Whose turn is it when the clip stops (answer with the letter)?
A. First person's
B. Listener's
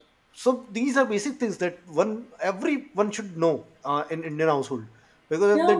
A